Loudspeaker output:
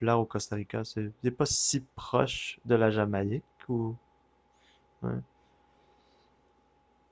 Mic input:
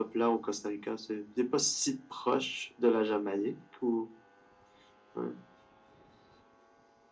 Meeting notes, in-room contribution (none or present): none